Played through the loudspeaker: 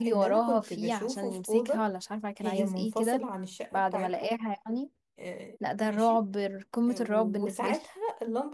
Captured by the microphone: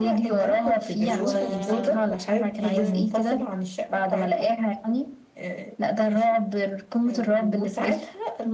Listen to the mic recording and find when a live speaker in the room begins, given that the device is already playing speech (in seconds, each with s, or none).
1.1 s